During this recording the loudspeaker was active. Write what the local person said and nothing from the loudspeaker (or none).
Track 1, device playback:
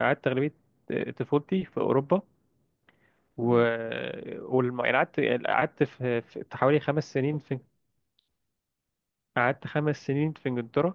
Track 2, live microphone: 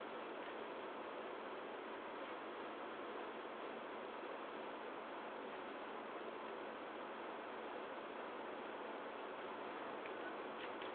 none